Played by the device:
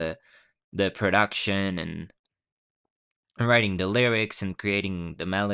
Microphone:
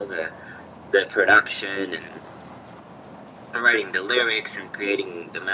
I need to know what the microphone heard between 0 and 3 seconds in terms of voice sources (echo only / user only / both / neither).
echo only